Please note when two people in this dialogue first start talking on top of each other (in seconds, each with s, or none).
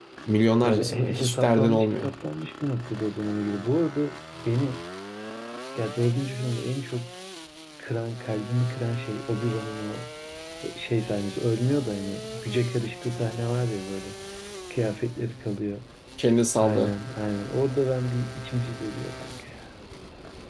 0.6 s